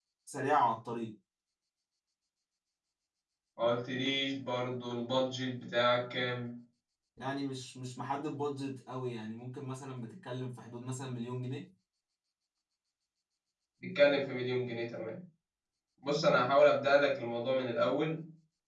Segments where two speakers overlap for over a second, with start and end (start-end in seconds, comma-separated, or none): none